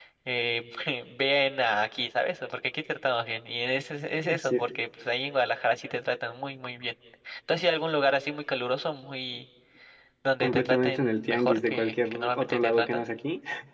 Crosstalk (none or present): present